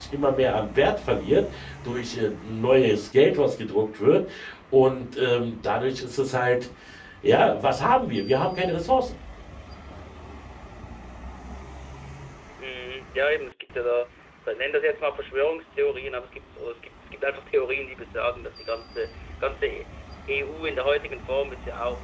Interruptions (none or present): none